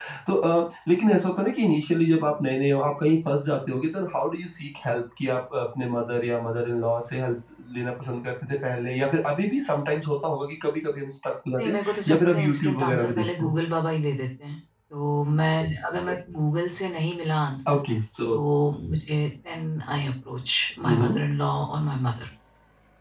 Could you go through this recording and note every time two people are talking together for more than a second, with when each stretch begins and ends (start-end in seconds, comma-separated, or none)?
11.6-13.5